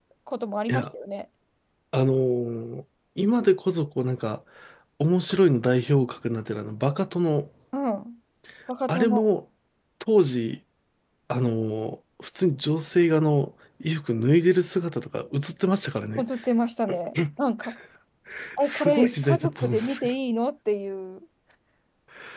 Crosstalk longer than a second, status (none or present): present